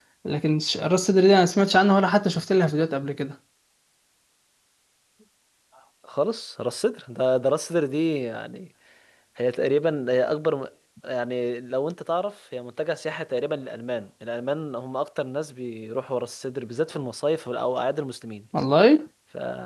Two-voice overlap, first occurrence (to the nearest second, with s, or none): none